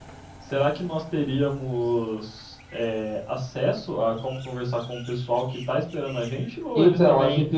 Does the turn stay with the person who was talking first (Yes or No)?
No